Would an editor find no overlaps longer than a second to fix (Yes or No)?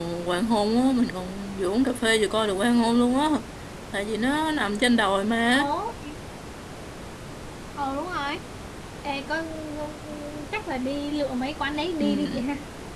Yes